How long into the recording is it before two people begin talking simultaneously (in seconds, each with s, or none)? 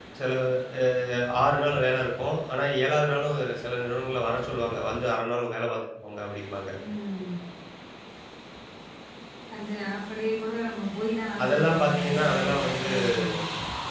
11.4 s